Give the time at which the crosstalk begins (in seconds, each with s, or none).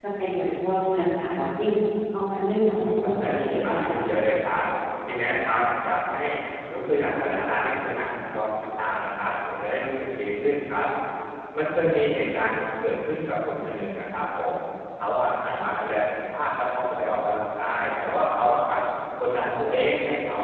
2.8 s